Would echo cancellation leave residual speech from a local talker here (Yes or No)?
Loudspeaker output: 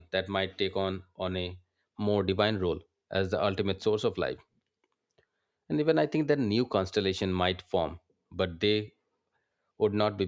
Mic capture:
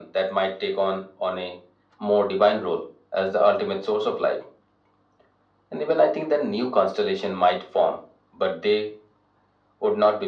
No